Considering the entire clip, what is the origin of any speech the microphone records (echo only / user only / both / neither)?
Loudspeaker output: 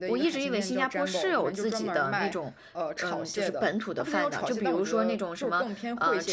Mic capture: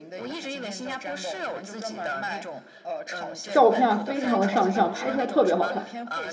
both